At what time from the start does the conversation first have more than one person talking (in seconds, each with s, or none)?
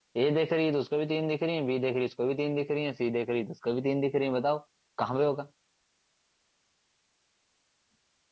none